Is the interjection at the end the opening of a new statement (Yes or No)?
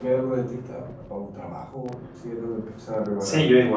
Yes